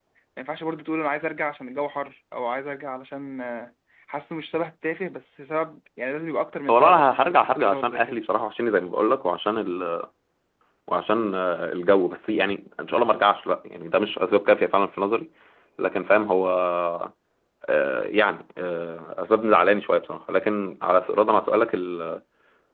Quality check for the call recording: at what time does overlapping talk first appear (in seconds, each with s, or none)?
6.7 s